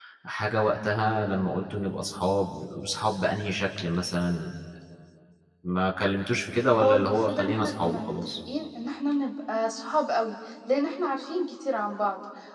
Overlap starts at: 6.8 s

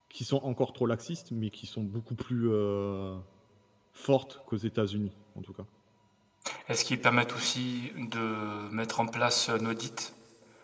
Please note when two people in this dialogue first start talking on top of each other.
none

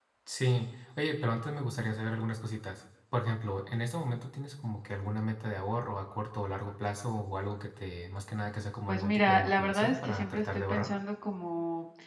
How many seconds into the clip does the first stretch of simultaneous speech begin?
8.9 s

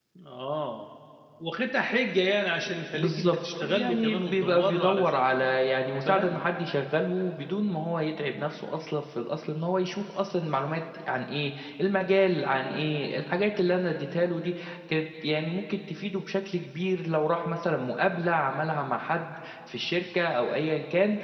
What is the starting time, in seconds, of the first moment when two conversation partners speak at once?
2.9 s

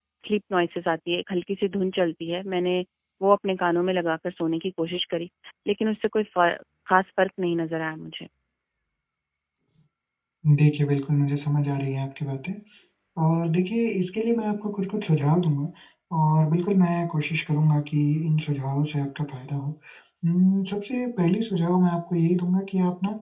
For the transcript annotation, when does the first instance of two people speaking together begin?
none

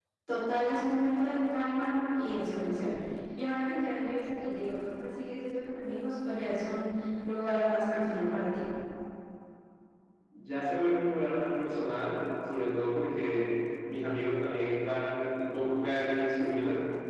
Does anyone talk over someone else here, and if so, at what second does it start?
none

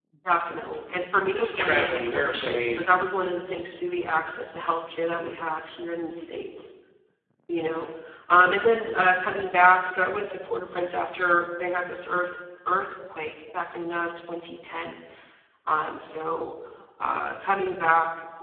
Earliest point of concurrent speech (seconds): 1.4 s

